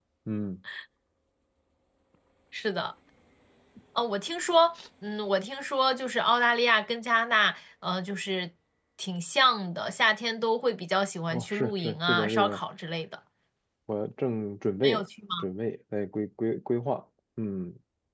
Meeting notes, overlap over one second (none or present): present